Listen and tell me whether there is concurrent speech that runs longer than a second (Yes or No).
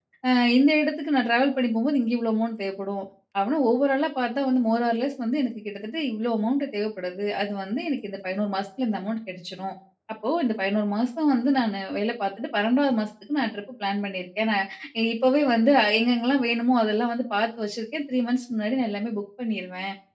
No